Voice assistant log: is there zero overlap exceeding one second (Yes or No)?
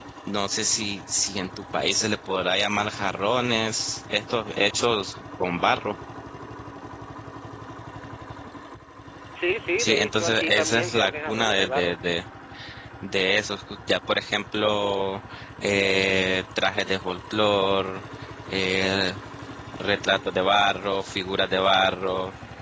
No